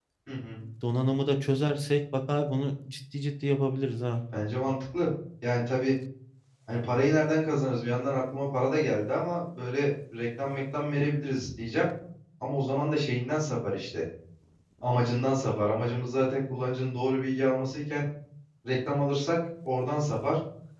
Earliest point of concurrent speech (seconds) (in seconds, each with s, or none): none